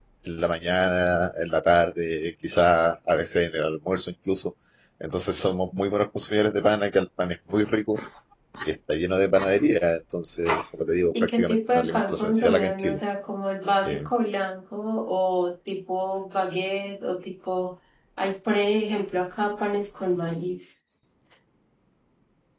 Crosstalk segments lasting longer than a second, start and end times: 11.1-13.0

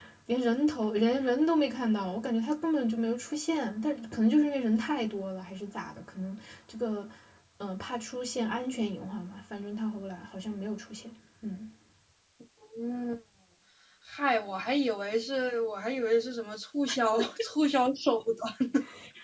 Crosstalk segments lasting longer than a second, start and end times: none

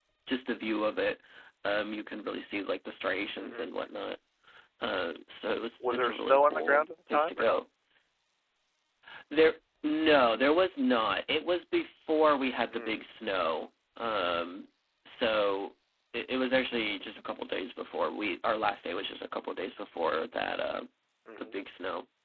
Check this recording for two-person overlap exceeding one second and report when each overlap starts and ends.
5.8-7.6

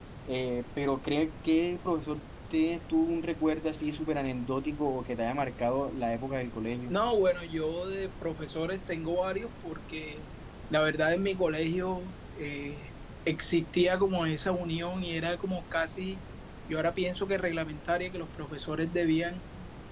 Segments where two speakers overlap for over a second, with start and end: none

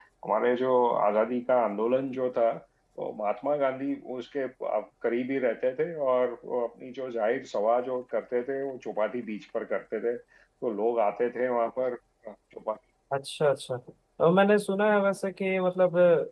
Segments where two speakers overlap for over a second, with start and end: none

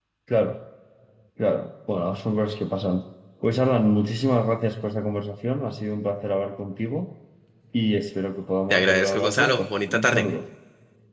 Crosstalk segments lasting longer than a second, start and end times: 8.7-10.2

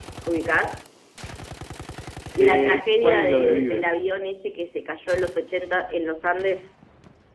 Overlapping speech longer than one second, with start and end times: 2.4-3.9

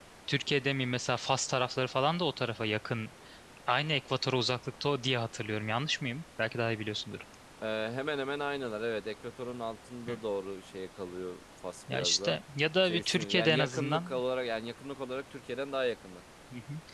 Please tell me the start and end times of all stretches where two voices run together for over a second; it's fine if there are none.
12.8-14.2

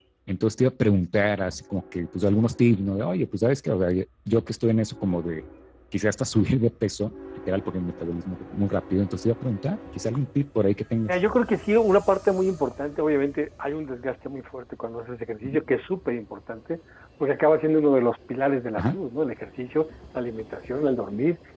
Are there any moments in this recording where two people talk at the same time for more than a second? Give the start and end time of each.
none

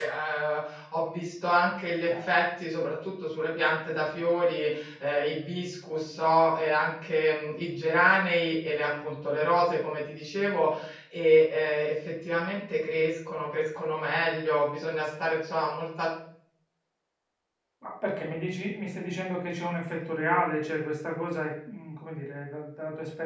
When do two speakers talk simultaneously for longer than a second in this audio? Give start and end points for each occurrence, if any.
none

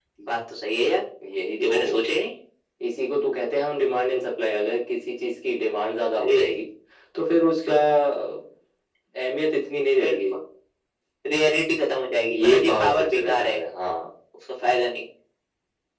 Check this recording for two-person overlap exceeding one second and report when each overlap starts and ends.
12.3-13.6

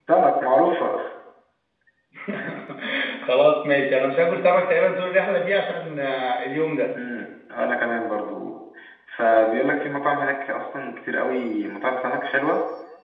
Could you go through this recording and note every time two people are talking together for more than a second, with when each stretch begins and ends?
none

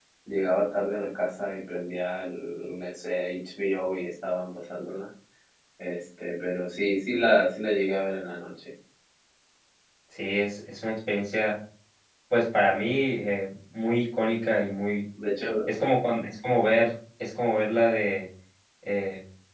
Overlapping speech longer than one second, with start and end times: none

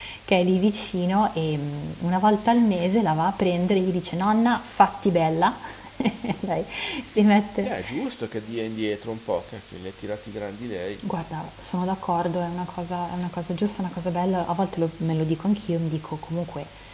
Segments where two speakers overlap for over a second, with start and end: none

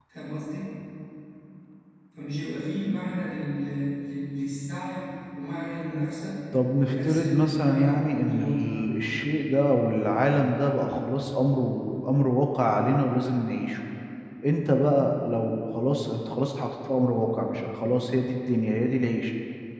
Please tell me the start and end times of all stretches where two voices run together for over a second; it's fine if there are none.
6.8-8.8

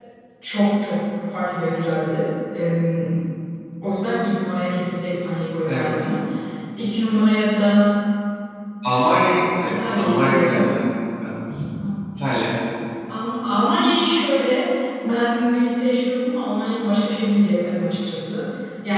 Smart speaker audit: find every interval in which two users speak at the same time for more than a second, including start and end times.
9.5-10.8

